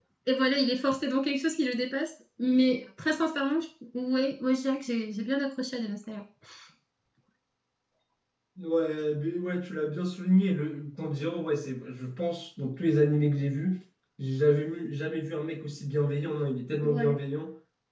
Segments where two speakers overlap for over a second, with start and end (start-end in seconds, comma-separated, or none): none